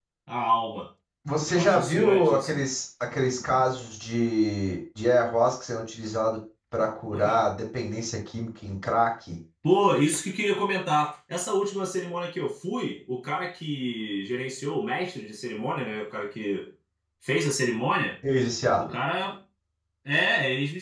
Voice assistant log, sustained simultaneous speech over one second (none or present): present